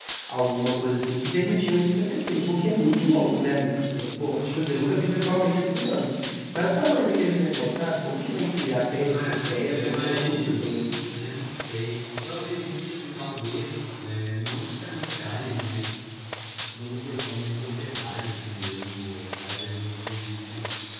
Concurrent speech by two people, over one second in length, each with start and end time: 9.1-10.8

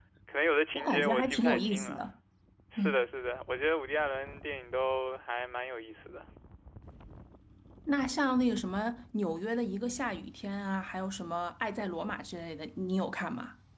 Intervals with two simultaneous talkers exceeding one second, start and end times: 0.7-2.0

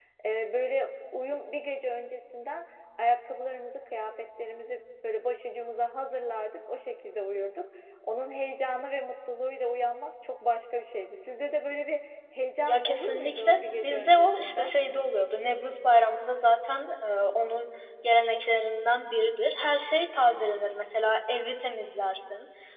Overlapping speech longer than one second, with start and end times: 12.6-14.7

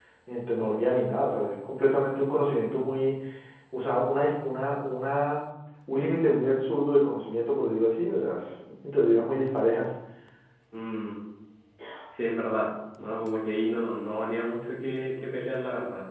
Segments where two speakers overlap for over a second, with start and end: none

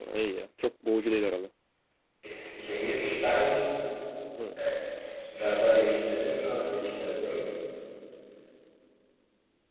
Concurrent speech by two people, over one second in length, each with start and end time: none

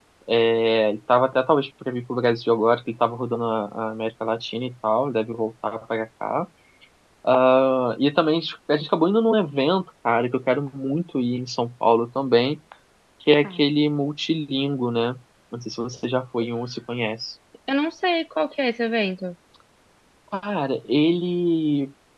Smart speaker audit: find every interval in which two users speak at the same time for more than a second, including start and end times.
none

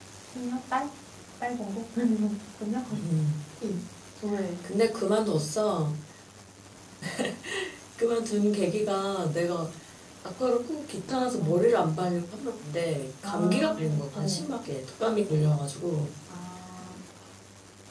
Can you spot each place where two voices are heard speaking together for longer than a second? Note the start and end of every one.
13.2-14.5

